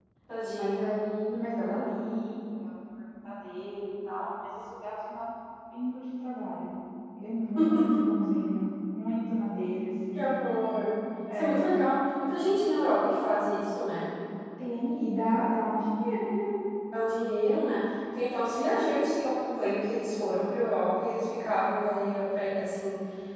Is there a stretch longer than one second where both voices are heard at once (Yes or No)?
No